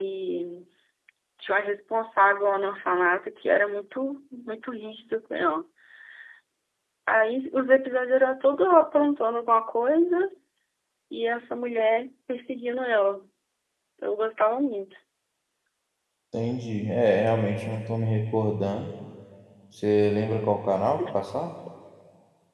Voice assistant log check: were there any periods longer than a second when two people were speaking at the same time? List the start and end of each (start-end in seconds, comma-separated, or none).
none